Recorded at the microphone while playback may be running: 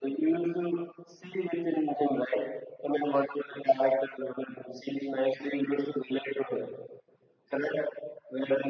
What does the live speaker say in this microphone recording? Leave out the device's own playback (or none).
none